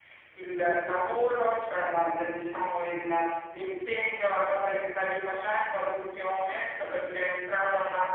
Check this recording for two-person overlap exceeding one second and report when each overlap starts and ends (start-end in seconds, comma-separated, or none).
none